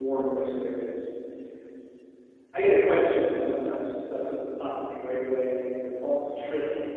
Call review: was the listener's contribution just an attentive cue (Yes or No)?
No